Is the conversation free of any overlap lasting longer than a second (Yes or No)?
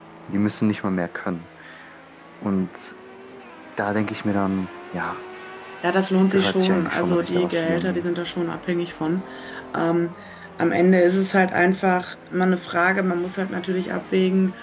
No